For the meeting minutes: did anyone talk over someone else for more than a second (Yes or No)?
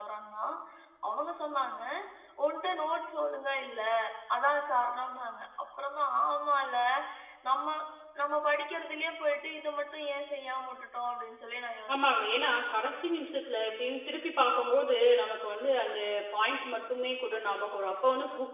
No